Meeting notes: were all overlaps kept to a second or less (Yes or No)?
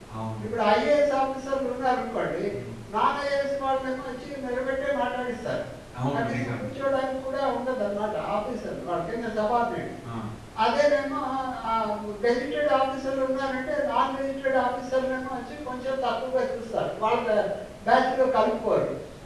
Yes